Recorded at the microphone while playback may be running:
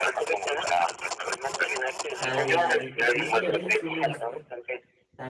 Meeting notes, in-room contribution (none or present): present